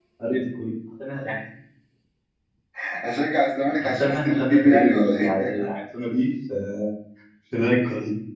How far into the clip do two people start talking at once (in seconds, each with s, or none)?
3.8 s